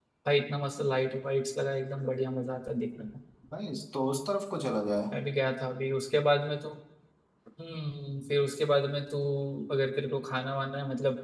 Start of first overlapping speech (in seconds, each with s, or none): none